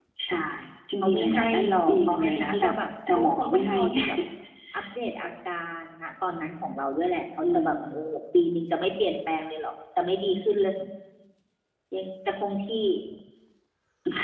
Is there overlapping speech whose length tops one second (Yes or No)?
Yes